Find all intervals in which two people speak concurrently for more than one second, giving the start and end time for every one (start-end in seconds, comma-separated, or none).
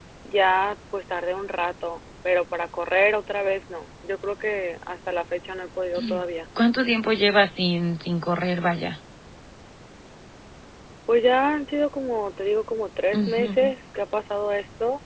none